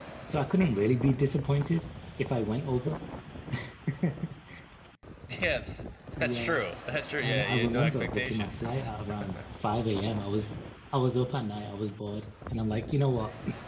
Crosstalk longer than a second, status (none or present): present